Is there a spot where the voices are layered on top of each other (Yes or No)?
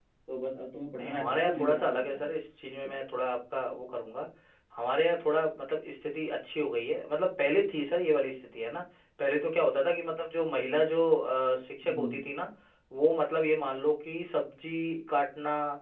Yes